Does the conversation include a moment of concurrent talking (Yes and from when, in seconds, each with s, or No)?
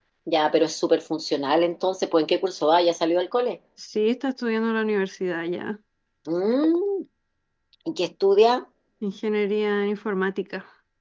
No